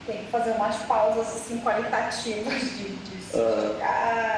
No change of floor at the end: Yes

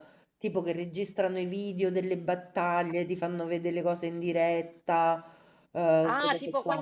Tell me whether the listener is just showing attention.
No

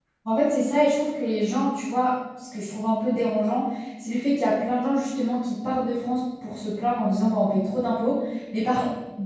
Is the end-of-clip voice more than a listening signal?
No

